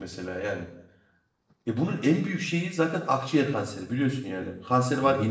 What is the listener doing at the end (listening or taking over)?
listening